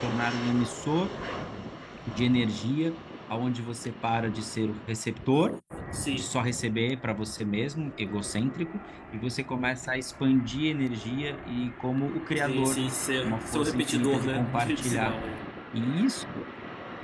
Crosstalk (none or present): present